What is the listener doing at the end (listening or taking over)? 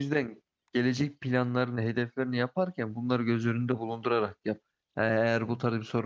listening